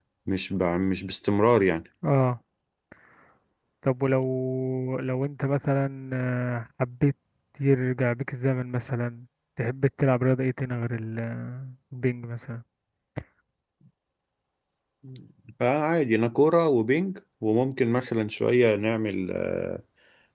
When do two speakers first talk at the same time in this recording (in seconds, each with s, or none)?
none